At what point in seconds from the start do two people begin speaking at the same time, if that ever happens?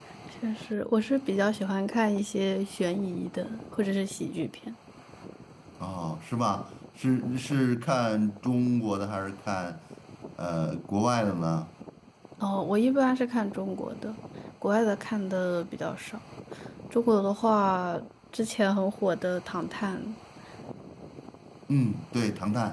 none

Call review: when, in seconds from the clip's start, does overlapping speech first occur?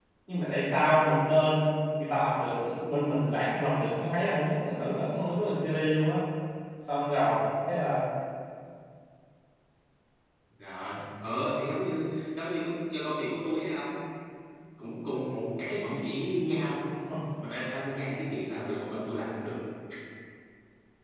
none

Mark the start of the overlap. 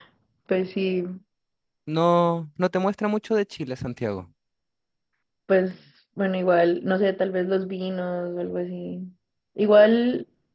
none

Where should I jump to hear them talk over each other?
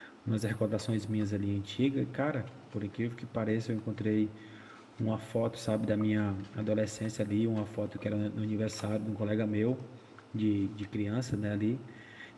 none

